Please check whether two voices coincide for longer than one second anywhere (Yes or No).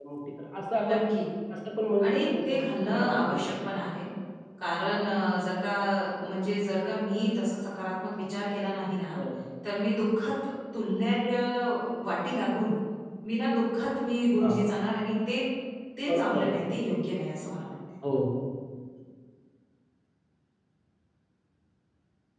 Yes